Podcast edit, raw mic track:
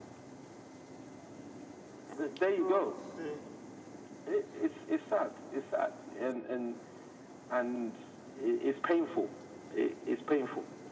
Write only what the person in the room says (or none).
I don't even know what to say.